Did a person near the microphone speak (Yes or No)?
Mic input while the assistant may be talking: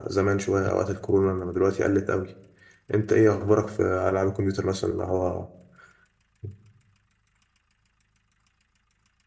Yes